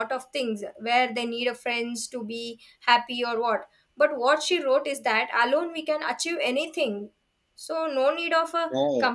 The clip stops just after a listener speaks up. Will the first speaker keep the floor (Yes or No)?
Yes